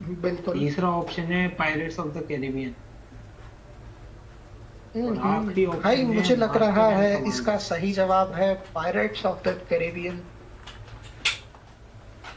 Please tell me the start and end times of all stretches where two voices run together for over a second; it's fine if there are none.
5.0-7.6

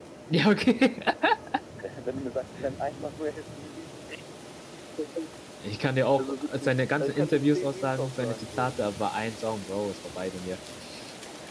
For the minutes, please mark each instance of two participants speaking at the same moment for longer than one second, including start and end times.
6.2-8.7

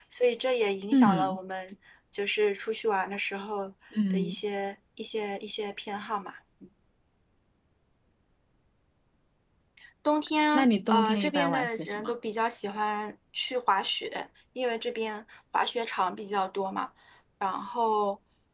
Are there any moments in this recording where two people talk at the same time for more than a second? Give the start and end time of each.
10.5-12.1

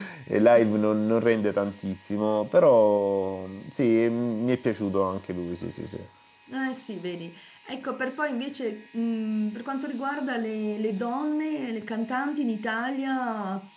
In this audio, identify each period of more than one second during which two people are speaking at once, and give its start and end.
none

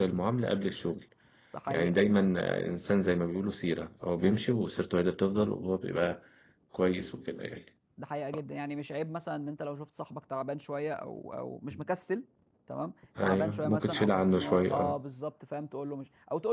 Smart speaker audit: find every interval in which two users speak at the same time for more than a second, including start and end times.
13.2-15.0

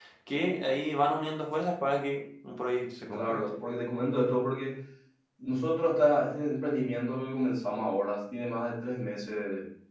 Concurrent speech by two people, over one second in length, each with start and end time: none

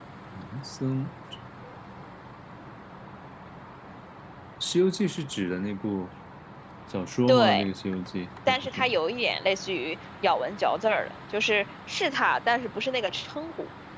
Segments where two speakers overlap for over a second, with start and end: none

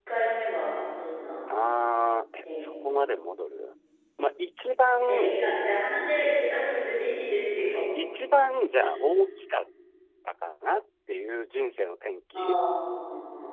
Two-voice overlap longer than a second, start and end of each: none

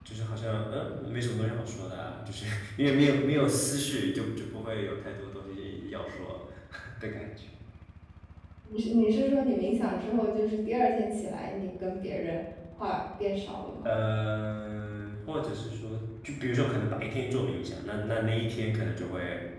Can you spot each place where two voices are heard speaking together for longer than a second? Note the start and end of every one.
none

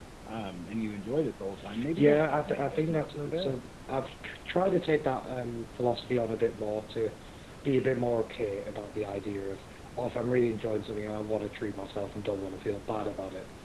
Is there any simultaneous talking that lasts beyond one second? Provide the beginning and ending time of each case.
2.0-3.6

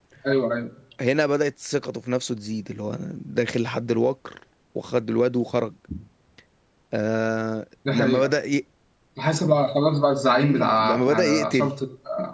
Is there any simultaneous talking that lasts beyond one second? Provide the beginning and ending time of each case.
10.3-11.7

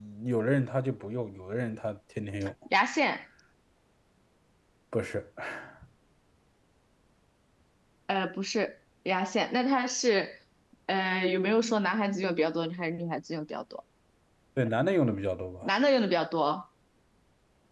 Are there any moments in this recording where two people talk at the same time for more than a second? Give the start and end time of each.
none

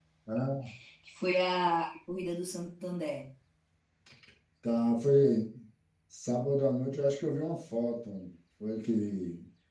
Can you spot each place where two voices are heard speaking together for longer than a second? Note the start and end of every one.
none

